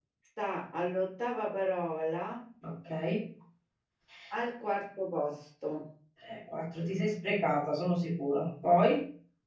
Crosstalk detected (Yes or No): No